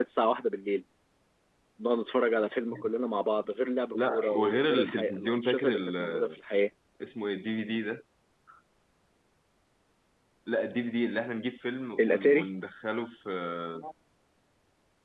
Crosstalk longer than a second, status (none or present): present